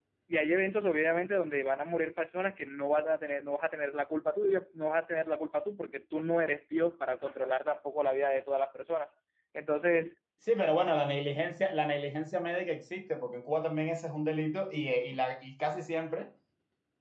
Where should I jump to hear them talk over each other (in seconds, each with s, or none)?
none